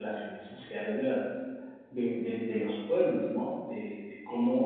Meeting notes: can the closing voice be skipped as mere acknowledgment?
Yes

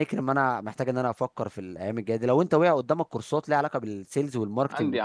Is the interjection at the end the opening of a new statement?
Yes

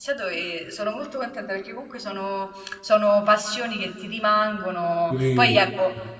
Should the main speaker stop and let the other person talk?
No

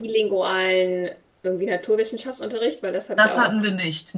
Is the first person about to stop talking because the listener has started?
Yes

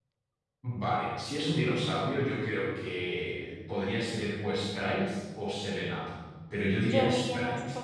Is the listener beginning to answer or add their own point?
Yes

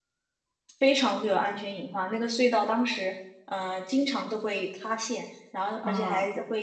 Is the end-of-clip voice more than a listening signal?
No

